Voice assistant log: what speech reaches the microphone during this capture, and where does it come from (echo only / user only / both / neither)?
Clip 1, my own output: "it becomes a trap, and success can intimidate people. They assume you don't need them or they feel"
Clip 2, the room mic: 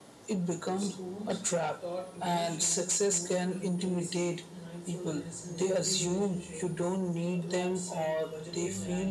both